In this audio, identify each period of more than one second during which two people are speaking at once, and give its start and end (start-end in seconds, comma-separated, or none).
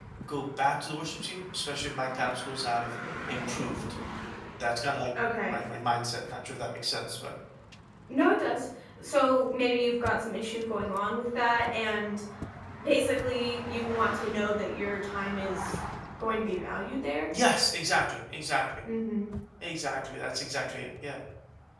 none